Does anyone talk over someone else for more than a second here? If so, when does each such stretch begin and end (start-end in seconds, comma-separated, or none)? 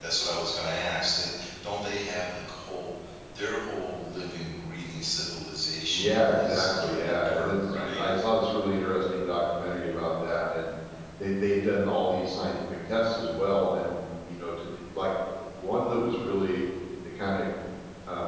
5.9-8.0